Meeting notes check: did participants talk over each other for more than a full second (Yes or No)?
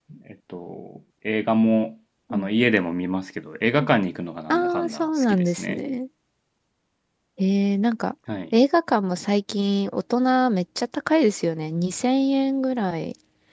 Yes